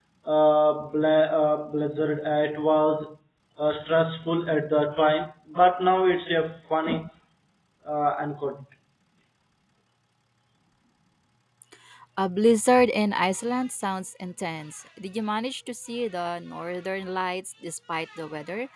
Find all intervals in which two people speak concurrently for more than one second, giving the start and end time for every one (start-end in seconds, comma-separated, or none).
none